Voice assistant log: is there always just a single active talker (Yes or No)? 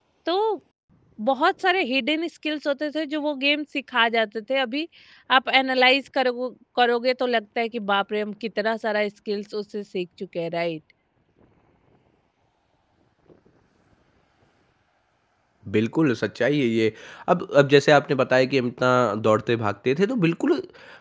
Yes